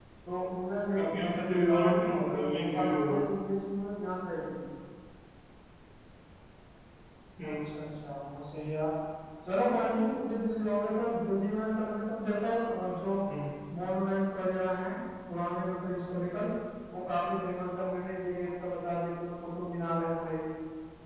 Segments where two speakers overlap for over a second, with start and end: 1.0-3.2

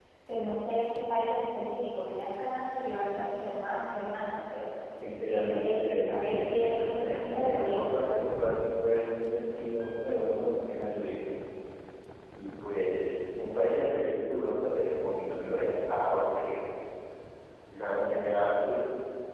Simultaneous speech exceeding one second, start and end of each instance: 5.3-7.9

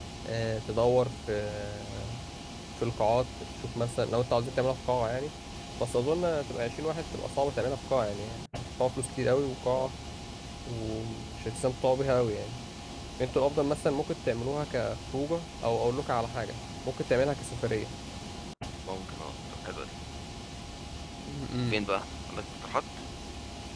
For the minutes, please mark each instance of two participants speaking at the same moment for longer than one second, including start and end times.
none

